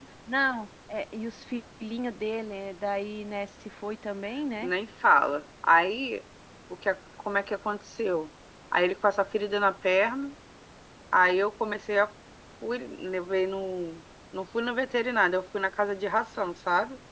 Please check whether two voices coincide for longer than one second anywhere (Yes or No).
No